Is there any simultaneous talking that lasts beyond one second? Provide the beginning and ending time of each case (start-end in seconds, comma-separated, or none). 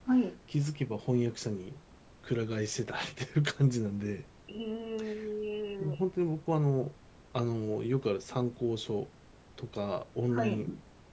none